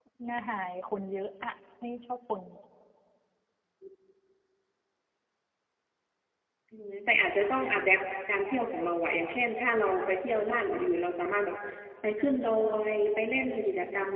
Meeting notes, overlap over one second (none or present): none